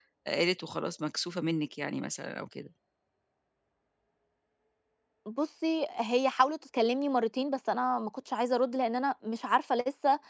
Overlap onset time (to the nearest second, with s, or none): none